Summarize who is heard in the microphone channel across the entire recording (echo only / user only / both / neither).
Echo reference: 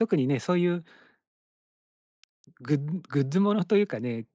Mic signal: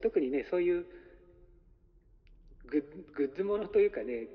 echo only